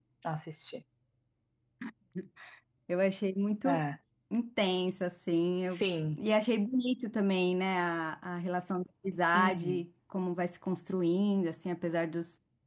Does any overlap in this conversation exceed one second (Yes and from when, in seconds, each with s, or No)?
No